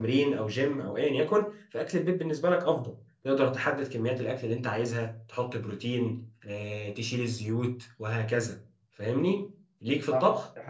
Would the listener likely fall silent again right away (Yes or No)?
No